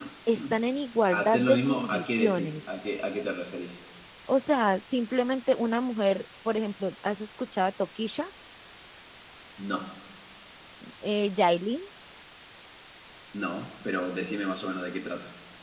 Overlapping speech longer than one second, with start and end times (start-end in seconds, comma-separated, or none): 1.1-2.5